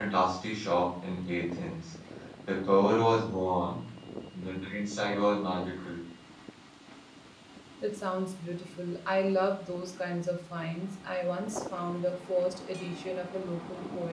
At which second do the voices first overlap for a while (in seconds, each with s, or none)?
none